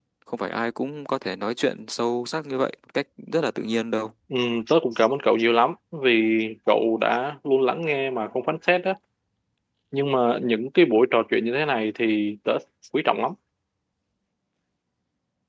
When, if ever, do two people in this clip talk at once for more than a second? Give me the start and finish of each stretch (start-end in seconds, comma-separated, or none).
none